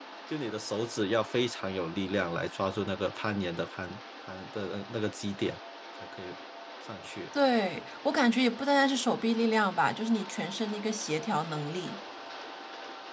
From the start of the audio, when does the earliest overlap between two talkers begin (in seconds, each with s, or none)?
none